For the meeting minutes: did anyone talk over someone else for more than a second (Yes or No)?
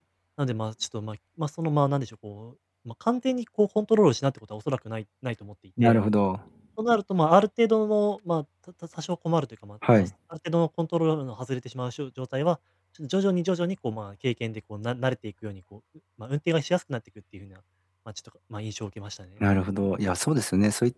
No